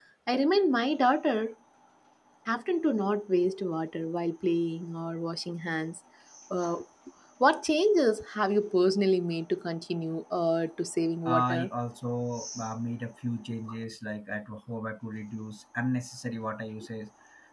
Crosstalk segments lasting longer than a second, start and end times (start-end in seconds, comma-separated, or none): none